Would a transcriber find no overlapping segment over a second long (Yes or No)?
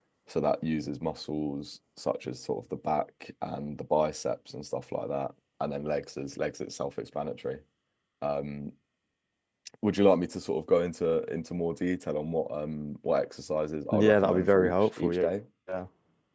No